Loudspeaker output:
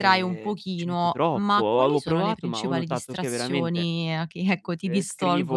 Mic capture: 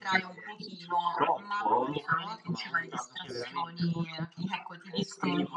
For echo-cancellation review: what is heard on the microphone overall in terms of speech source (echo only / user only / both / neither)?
echo only